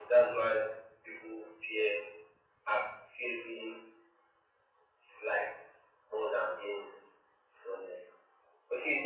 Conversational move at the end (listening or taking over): listening